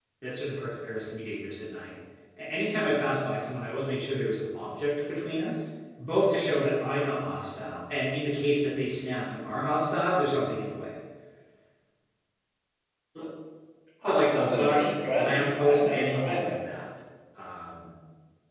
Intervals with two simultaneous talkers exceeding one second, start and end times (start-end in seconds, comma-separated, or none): 14.1-16.5